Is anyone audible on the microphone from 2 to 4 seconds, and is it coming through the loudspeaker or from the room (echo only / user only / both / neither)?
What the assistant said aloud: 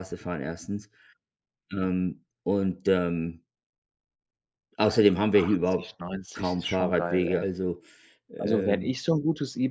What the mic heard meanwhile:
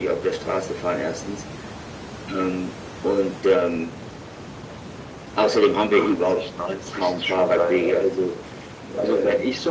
echo only